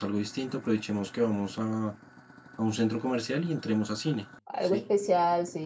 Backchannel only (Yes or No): No